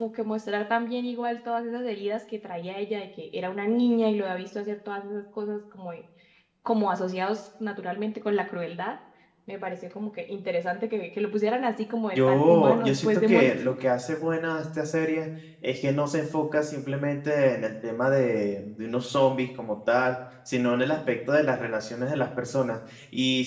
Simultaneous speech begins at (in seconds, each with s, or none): 12.1 s